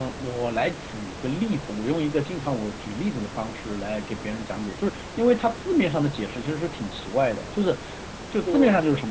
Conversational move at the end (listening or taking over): listening